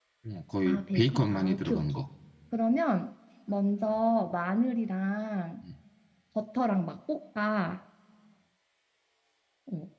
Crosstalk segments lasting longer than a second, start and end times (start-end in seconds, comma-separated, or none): 0.6-2.0